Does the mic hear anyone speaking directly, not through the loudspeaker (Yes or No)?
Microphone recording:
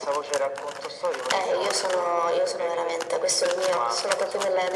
No